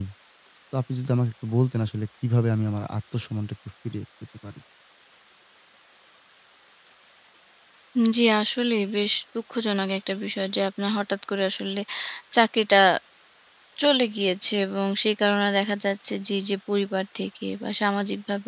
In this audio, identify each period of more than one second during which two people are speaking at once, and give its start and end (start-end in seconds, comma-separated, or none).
none